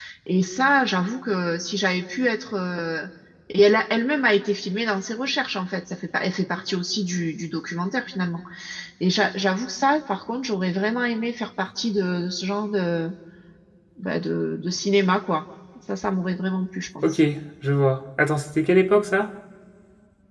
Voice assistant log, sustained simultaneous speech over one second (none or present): none